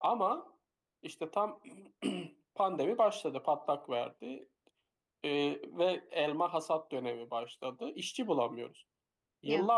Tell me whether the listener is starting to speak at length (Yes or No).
No